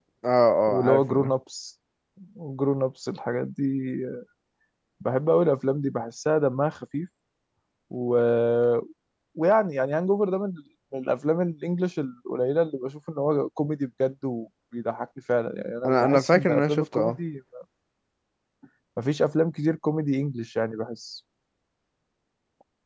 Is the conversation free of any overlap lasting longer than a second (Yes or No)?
No